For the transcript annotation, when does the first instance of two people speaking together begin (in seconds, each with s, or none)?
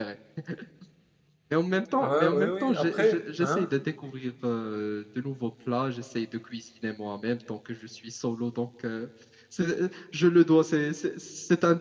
2.0 s